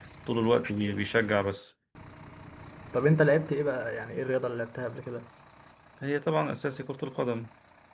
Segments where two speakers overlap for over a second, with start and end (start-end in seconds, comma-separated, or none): none